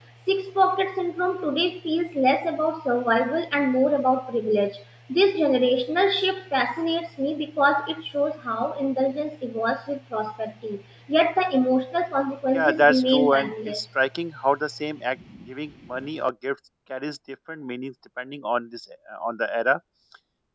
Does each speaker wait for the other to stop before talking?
No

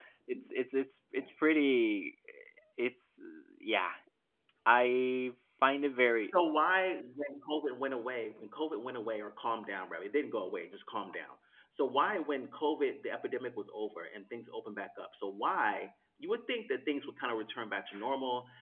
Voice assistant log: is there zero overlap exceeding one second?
Yes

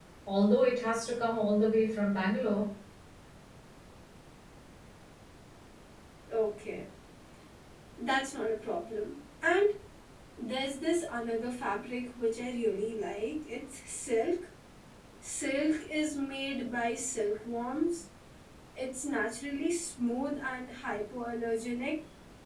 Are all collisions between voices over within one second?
Yes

